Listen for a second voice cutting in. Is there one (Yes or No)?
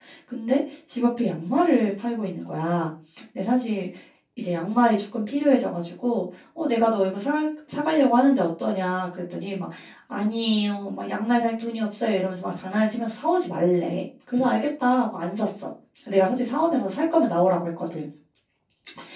No